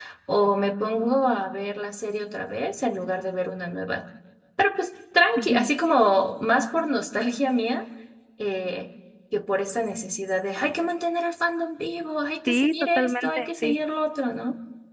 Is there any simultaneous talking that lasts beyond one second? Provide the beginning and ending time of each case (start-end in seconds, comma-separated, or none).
12.5-13.8